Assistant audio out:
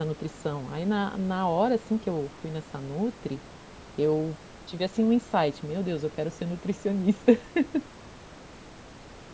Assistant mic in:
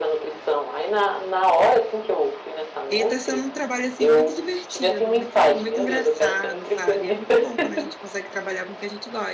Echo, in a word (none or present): present